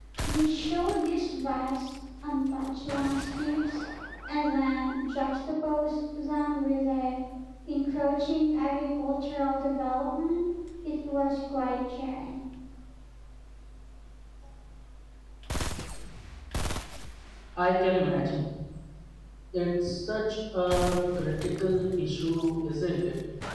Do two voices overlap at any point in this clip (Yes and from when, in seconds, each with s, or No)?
No